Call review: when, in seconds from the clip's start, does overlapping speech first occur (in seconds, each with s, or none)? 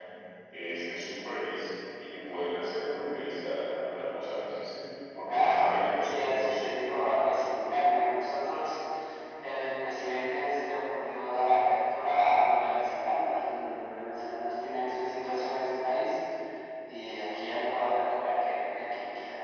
5.3 s